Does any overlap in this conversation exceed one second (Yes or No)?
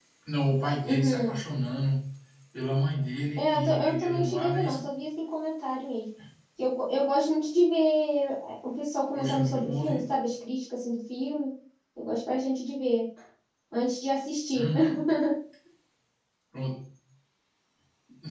Yes